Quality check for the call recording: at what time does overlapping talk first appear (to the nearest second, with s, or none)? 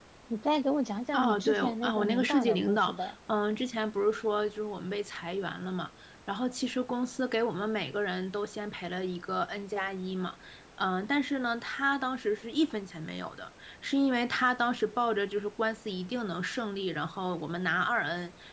1 s